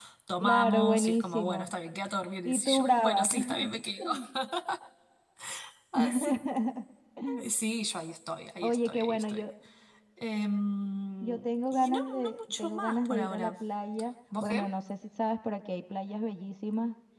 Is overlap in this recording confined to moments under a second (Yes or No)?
No